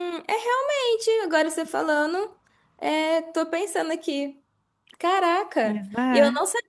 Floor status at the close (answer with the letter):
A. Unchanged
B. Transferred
A